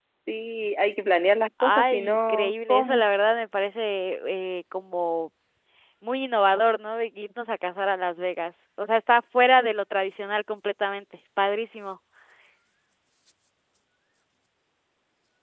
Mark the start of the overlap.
1.6 s

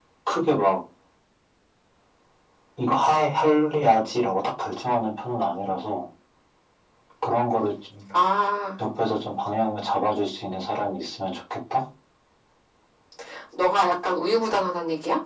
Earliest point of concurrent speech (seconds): none

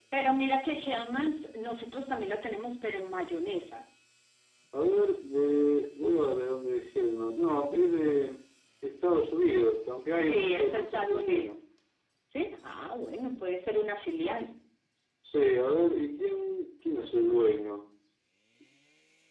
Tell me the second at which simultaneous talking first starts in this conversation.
10.2 s

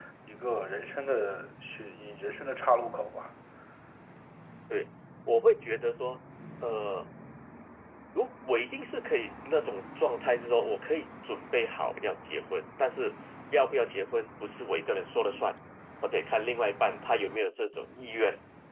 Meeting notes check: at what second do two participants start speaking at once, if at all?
none

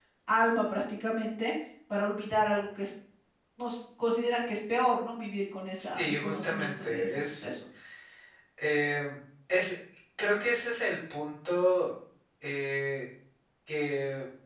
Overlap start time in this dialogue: 5.8 s

